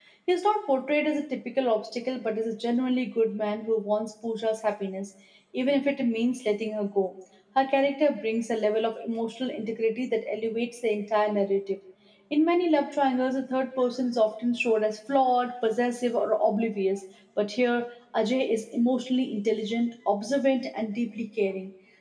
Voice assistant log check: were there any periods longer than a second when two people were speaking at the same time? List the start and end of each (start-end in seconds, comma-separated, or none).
none